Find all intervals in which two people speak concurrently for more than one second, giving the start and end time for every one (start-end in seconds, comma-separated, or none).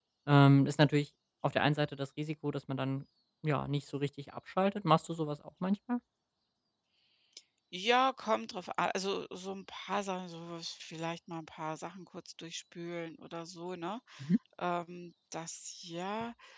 none